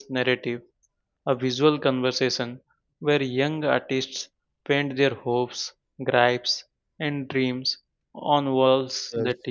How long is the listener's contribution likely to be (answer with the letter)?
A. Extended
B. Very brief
B